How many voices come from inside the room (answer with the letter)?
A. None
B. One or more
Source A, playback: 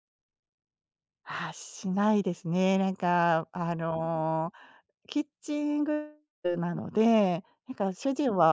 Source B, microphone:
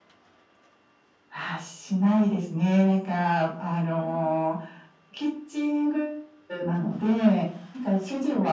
A